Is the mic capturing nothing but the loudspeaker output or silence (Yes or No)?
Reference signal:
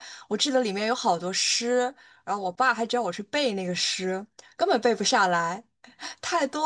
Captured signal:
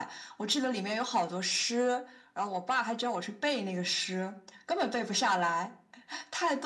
Yes